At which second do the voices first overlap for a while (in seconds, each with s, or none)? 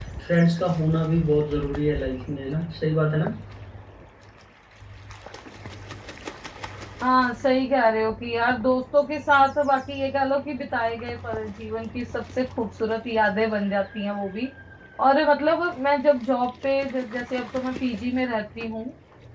none